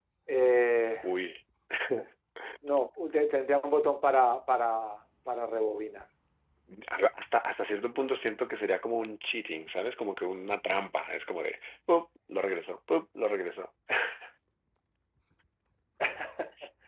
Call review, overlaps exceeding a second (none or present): none